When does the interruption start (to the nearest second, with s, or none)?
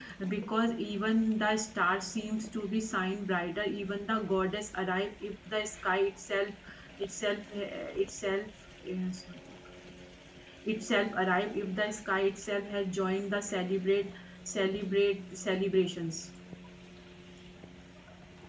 none